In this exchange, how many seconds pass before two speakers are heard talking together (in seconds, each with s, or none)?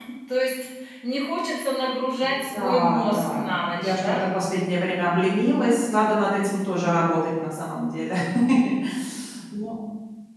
2.5 s